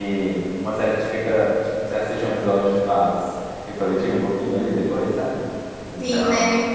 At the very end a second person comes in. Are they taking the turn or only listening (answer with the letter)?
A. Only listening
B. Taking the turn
B